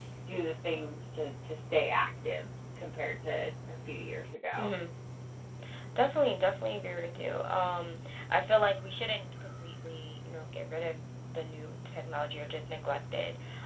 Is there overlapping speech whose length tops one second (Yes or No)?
No